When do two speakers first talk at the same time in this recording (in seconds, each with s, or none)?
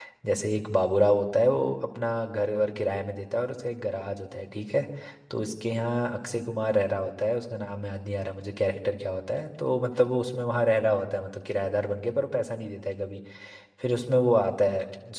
none